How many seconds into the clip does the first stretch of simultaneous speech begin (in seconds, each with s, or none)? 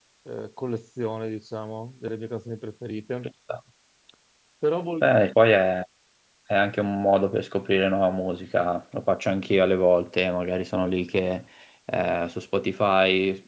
none